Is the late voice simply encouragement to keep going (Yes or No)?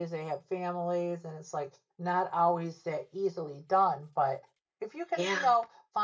Yes